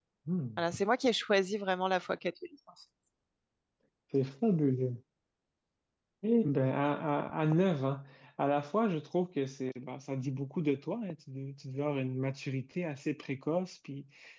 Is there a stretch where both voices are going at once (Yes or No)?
No